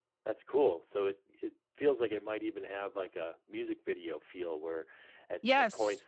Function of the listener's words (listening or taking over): listening